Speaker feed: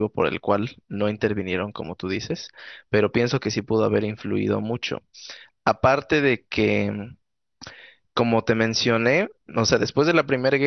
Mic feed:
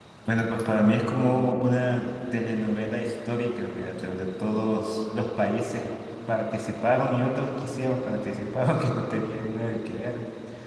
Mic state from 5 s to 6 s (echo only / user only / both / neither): user only